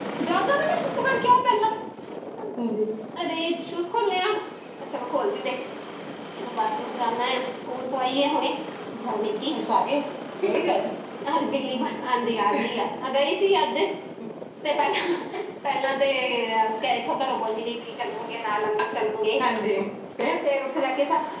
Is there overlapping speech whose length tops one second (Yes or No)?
No